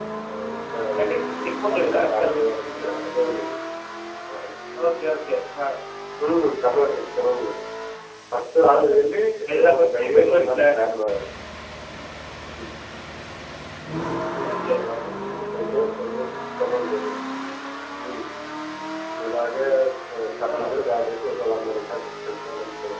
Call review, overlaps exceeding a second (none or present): present